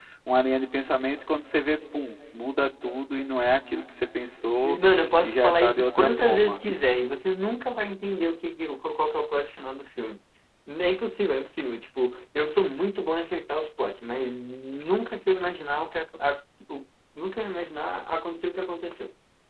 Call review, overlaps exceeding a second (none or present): present